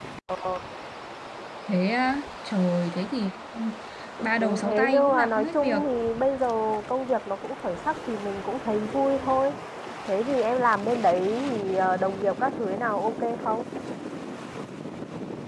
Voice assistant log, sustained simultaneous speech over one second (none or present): present